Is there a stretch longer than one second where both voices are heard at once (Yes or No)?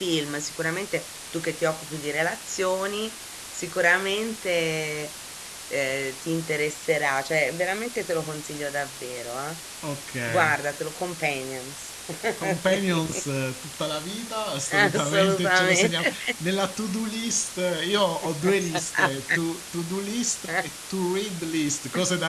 Yes